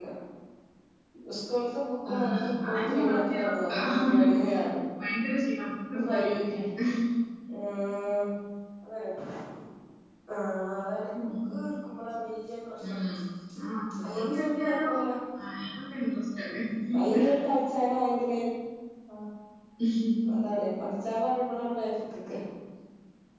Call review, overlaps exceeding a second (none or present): present